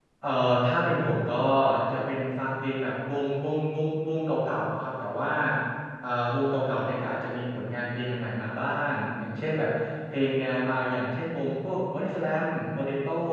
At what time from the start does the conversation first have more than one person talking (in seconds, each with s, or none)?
none